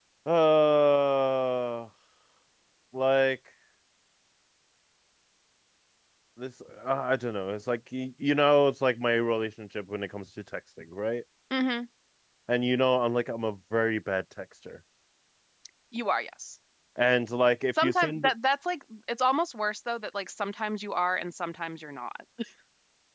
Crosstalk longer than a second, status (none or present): none